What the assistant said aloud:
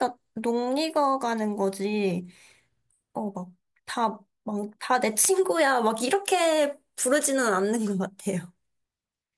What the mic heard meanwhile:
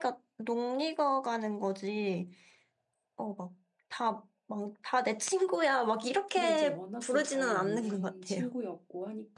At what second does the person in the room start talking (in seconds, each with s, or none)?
6.3 s